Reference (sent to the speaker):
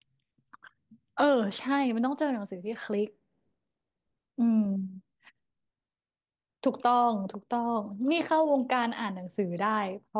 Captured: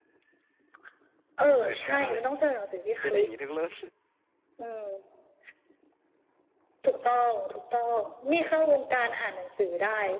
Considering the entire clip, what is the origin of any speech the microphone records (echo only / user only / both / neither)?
both